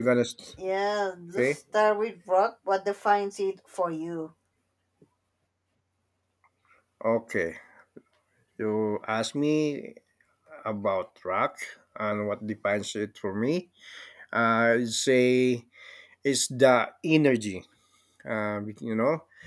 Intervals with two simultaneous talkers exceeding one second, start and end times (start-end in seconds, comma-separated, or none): none